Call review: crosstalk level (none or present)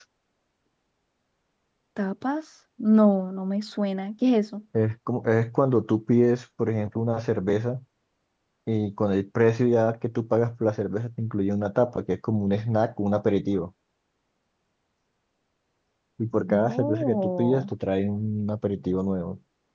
present